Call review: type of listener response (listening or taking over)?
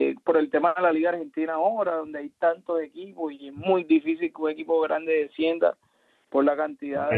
taking over